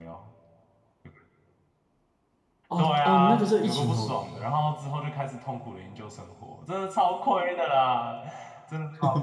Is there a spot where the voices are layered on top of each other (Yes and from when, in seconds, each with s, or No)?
Yes, from 2.8 s